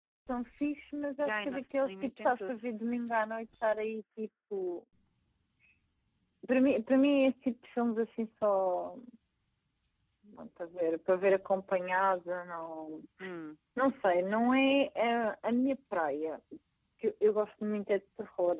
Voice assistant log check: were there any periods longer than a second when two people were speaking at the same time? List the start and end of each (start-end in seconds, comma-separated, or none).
1.2-2.6